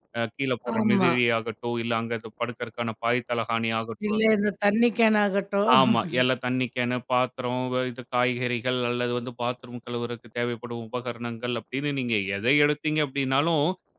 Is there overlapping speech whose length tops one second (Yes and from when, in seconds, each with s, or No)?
No